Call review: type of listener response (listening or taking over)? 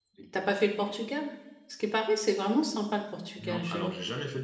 taking over